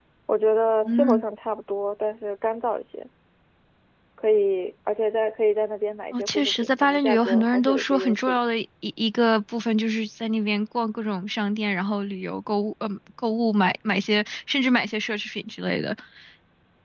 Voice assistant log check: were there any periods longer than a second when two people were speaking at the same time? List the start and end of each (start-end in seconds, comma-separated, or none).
6.1-8.4